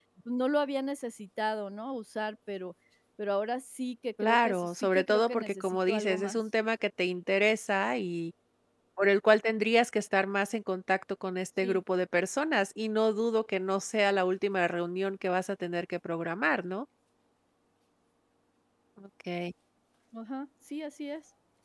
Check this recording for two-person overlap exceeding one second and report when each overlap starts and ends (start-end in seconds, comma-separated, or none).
4.2-6.4